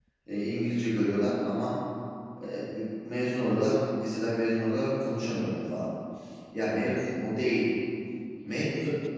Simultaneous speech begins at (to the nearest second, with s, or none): none